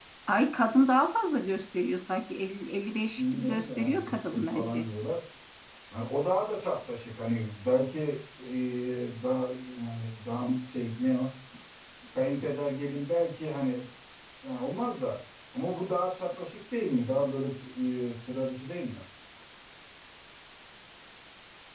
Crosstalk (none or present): present